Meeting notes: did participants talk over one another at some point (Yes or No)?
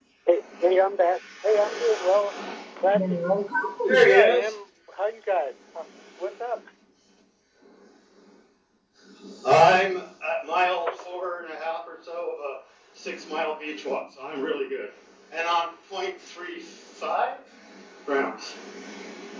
Yes